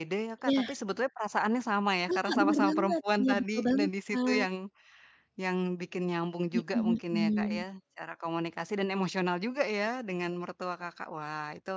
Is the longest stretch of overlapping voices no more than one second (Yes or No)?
No